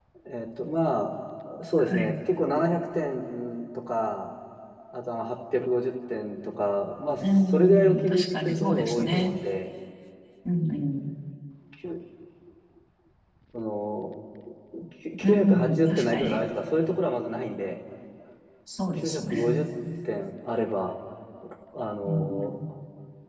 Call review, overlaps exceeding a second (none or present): present